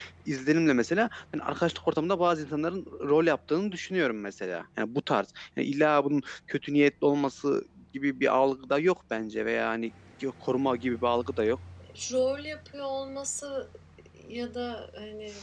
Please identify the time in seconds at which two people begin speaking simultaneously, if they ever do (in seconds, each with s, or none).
none